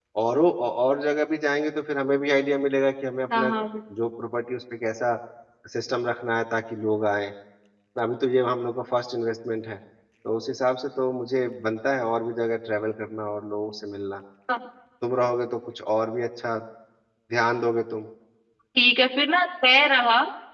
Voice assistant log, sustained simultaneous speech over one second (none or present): none